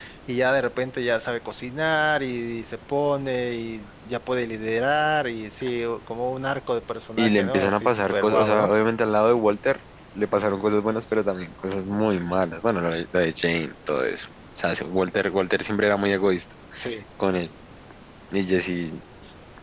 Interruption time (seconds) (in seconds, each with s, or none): 7.2 s